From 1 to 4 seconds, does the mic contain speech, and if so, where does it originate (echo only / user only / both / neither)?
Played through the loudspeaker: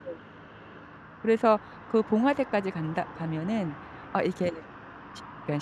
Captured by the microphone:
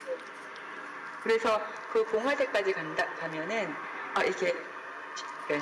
echo only